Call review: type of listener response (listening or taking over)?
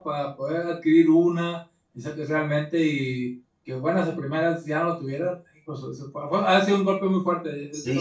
taking over